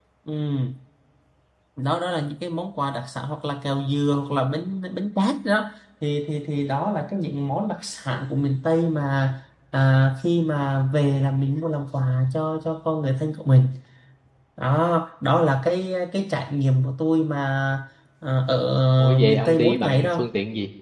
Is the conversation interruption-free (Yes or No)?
No